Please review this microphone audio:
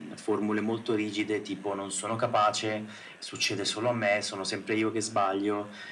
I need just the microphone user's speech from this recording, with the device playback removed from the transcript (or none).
none